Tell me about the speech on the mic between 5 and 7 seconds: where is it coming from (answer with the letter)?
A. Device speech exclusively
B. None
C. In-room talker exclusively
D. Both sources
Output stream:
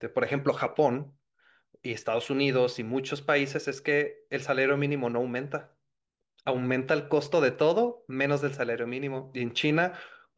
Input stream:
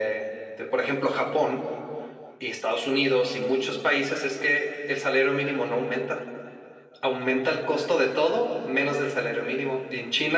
A